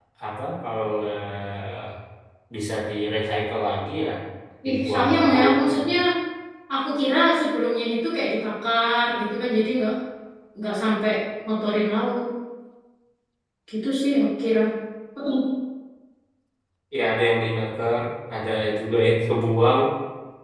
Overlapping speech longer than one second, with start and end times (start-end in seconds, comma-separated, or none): 4.7-5.9